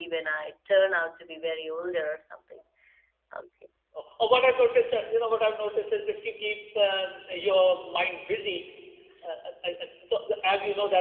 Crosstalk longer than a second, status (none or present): none